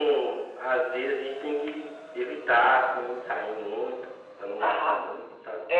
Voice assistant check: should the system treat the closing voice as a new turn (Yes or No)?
Yes